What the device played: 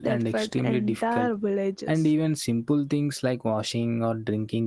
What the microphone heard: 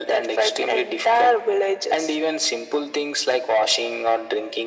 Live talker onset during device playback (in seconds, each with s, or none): none